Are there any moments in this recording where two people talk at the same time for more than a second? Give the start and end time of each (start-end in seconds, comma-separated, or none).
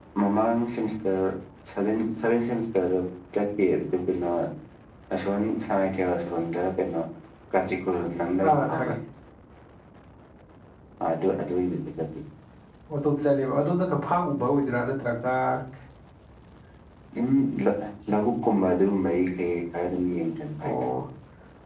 none